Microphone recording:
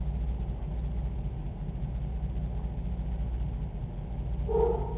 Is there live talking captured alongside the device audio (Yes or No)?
No